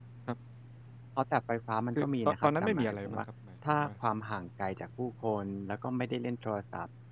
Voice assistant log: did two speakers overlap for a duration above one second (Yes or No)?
Yes